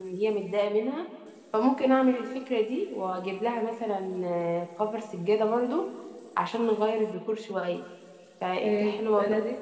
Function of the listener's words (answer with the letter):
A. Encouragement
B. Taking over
B